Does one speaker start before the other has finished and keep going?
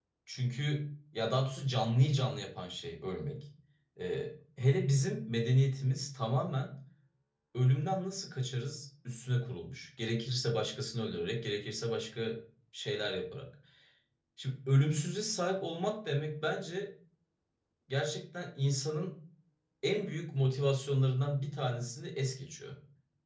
No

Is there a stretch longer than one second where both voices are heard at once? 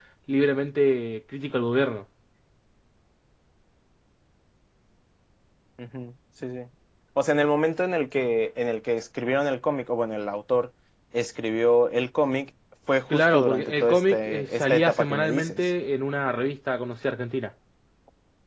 Yes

